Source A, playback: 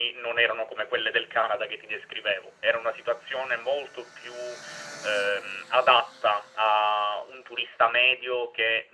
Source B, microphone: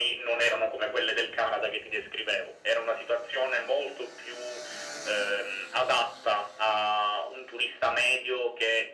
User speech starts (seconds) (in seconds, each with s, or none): none